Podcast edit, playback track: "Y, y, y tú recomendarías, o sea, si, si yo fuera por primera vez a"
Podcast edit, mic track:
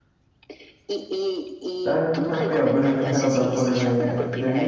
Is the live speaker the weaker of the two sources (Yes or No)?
No